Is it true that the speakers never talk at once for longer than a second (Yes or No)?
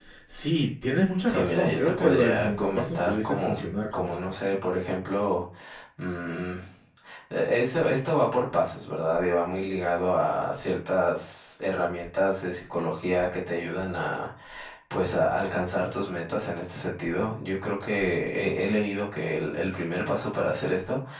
No